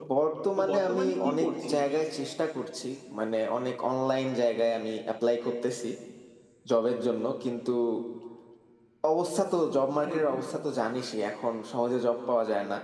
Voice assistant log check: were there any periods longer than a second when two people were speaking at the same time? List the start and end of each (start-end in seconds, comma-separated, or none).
0.6-1.9